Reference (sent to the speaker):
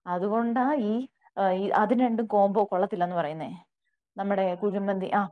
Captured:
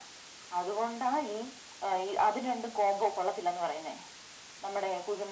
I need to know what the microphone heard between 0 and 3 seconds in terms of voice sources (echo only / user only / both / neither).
echo only